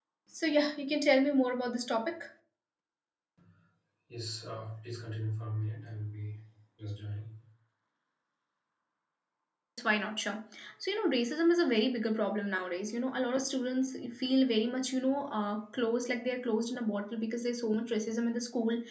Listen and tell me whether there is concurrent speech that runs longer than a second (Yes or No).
No